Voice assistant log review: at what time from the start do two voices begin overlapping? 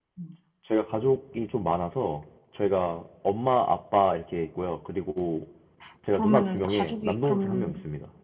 6.1 s

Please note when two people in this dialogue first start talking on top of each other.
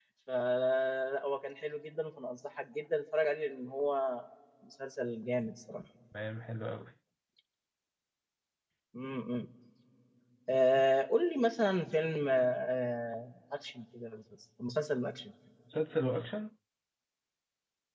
none

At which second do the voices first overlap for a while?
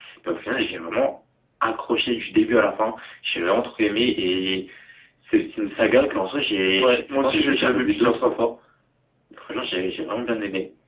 6.8 s

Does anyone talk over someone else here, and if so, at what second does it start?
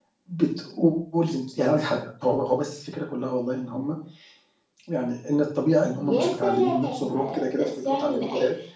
6.0 s

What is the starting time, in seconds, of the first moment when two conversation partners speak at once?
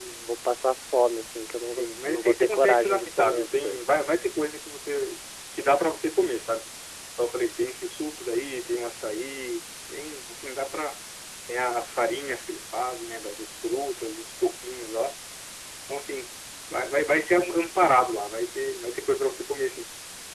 1.6 s

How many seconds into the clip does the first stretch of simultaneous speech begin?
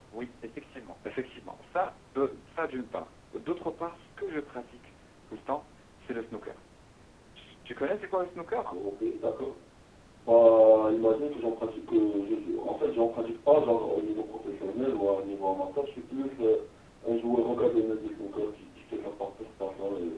none

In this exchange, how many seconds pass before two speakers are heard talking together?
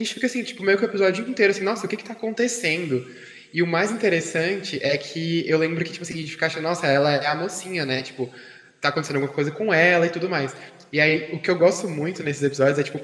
none

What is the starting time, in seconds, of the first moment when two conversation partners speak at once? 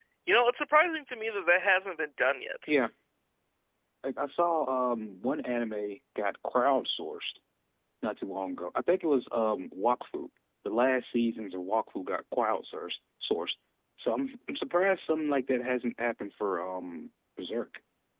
none

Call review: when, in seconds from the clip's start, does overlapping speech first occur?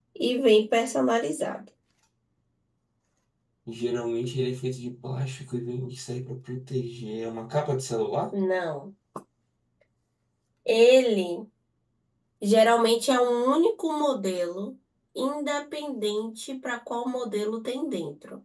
none

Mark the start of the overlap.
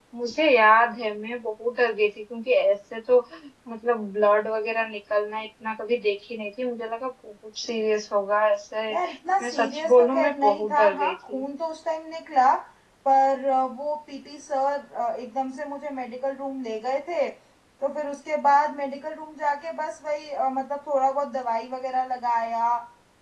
9.4 s

